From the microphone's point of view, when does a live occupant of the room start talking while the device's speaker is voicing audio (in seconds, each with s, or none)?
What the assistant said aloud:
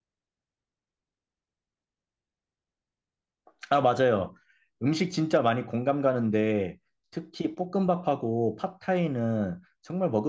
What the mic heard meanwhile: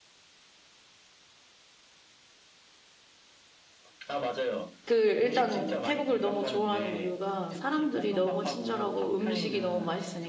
4.9 s